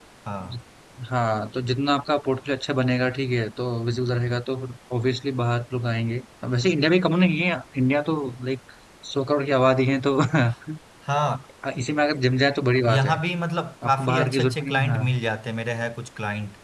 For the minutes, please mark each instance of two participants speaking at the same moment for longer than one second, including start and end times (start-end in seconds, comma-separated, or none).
13.8-15.1